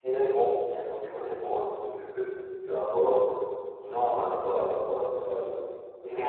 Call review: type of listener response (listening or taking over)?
taking over